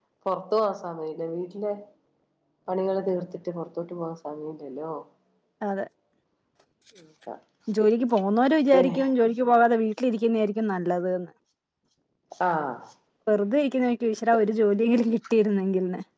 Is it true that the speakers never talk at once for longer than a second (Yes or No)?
Yes